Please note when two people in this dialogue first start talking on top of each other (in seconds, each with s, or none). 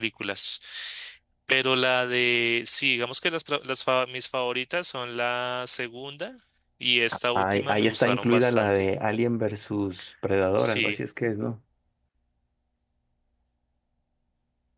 7.4 s